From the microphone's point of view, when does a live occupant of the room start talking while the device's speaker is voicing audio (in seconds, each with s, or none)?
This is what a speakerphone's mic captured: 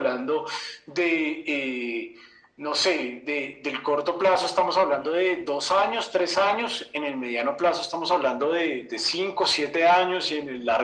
none